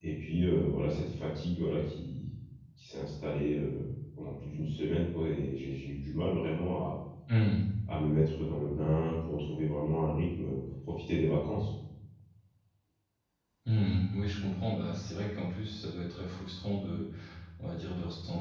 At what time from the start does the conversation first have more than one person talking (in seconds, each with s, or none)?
none